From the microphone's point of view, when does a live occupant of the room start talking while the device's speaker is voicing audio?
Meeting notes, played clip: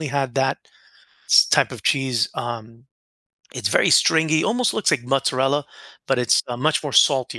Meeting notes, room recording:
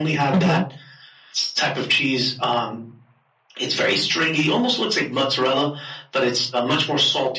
0.3 s

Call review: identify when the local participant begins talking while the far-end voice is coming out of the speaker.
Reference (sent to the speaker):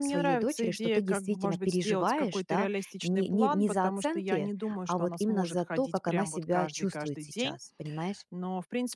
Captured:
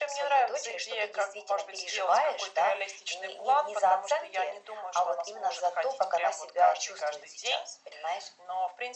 none

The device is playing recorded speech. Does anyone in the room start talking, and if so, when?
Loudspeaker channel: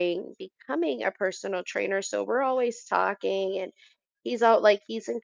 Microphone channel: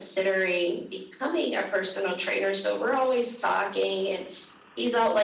none

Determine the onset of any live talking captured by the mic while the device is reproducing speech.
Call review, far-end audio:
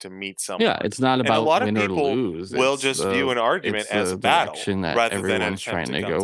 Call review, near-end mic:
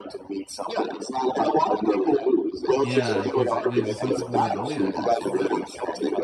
2.8 s

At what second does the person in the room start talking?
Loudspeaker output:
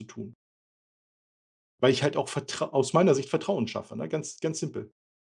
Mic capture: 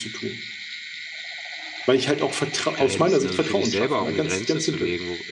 2.7 s

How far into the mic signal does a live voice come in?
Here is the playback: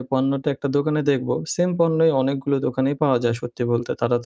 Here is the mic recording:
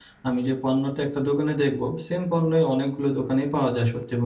none

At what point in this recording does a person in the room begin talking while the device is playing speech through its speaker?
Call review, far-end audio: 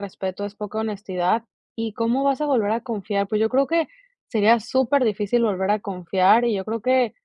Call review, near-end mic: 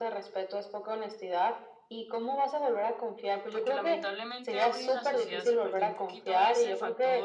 3.5 s

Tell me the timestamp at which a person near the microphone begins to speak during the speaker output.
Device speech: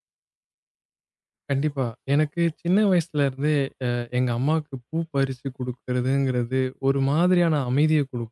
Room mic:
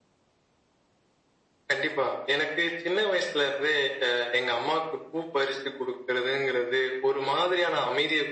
none

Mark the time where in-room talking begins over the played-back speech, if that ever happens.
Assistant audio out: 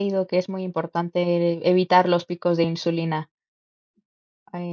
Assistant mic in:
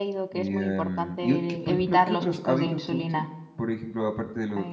0.3 s

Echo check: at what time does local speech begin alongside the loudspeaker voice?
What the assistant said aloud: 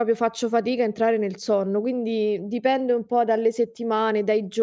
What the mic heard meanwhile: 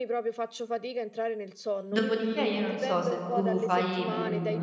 1.9 s

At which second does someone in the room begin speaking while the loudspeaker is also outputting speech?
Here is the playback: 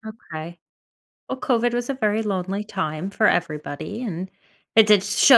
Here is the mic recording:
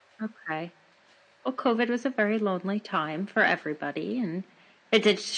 none

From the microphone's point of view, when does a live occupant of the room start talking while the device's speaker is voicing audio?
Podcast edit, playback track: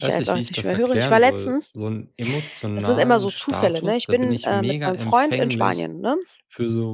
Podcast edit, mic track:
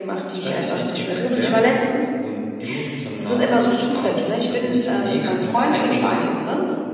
none

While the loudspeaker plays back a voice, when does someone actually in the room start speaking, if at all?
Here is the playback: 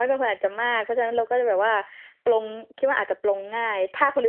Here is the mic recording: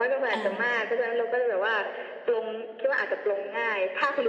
0.3 s

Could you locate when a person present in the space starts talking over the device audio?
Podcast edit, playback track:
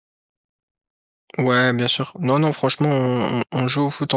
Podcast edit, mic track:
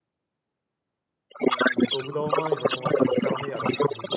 1.7 s

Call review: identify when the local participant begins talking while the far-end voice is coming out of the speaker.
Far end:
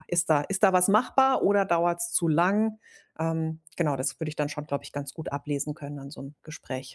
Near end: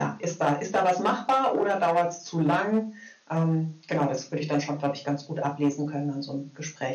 none

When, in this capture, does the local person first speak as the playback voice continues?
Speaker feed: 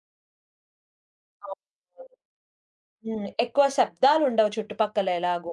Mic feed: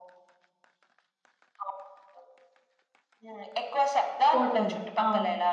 4.3 s

